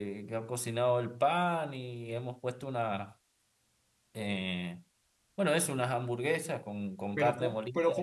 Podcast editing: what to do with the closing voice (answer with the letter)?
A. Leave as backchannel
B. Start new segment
B